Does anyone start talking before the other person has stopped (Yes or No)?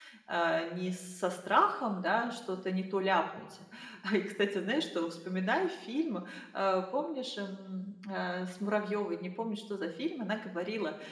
No